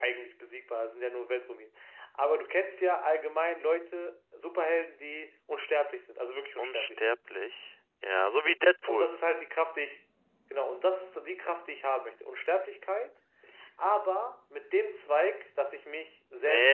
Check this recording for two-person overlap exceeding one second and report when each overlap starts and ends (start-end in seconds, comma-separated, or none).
none